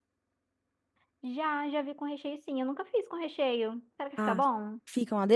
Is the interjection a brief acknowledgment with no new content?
No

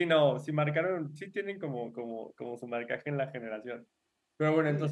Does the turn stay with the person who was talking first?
Yes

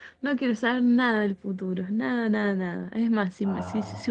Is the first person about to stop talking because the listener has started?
No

